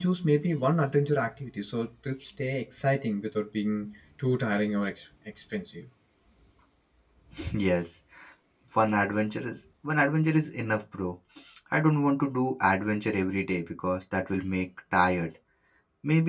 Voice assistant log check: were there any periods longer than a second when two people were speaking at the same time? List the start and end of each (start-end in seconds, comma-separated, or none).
none